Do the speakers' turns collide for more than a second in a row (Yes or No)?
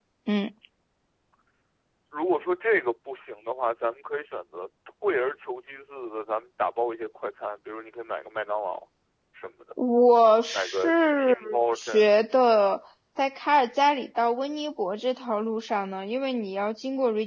Yes